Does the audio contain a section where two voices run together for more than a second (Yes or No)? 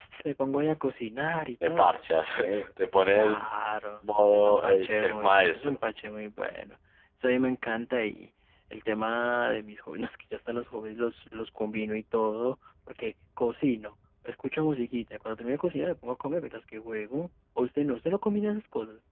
Yes